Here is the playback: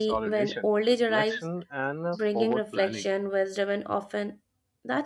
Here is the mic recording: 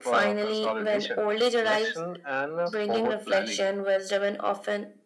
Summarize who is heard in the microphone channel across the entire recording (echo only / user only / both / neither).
echo only